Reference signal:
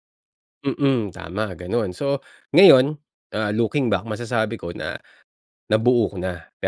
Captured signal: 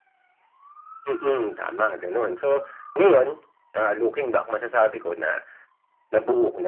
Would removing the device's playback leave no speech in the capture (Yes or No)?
Yes